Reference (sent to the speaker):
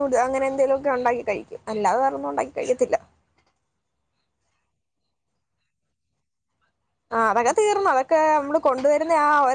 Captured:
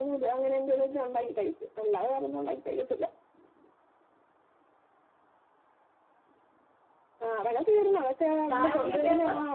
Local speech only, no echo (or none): ചായ കുടിയൊക്കെയാ അപ്പം